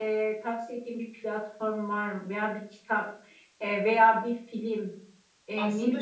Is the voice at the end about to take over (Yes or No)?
No